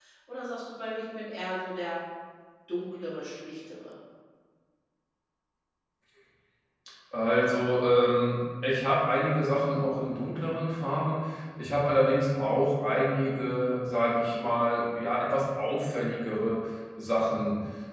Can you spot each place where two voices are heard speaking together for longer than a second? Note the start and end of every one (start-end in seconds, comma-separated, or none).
none